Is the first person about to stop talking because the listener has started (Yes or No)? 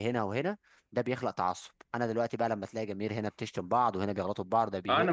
Yes